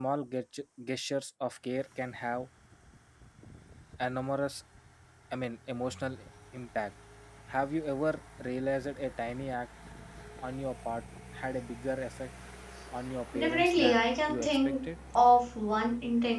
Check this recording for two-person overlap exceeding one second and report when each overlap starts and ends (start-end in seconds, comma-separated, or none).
13.3-14.8